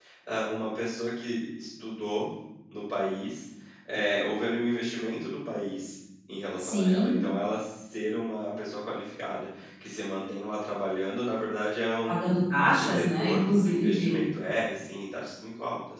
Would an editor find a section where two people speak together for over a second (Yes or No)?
Yes